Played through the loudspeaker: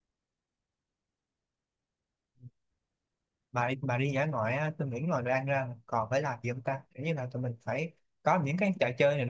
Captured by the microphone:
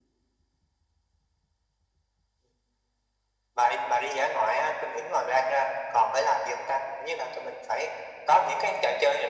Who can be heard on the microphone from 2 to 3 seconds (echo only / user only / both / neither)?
neither